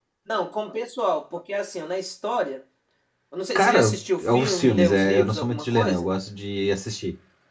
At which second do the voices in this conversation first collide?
3.6 s

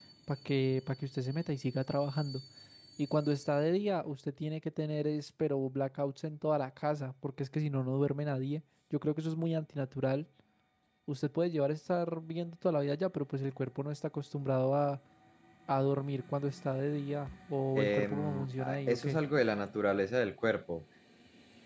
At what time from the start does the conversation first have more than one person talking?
17.7 s

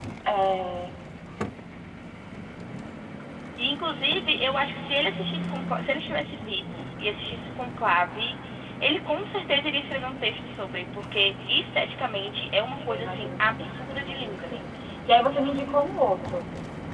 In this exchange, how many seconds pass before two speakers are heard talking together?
12.9 s

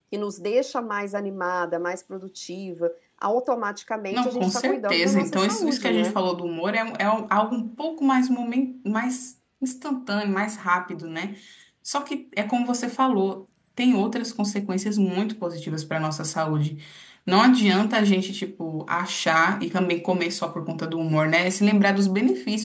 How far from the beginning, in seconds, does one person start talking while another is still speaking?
4.1 s

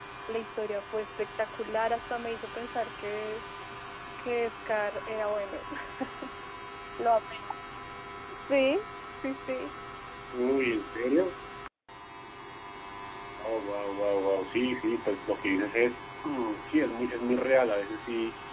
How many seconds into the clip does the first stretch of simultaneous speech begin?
none

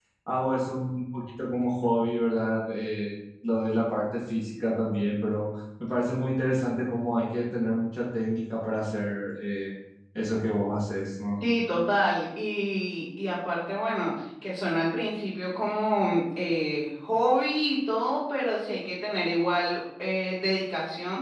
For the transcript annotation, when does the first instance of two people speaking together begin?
none

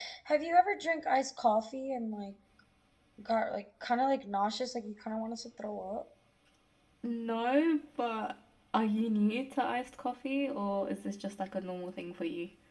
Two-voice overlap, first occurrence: none

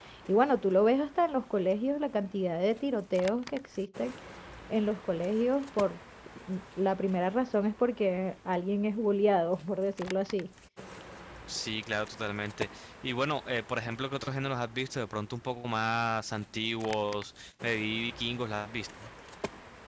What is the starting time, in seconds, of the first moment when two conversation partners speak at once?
none

